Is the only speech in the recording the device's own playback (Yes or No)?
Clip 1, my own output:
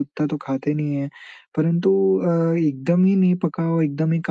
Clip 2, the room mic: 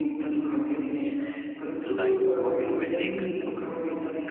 No